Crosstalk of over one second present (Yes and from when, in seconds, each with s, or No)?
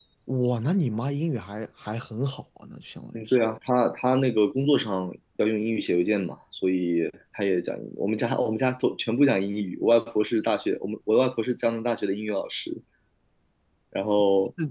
No